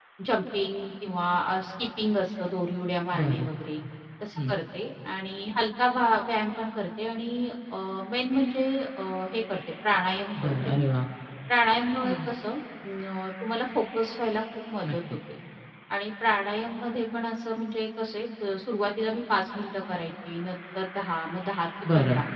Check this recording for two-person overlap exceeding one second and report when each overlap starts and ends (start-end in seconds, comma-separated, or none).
none